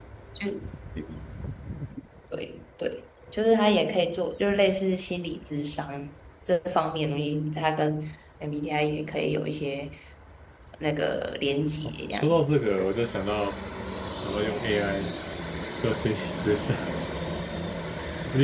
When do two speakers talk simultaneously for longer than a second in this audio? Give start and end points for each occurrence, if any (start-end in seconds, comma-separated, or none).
none